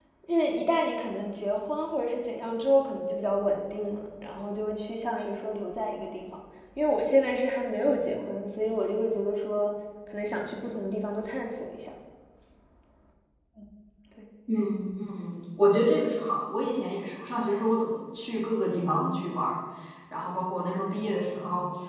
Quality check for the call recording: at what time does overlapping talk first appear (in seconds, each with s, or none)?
none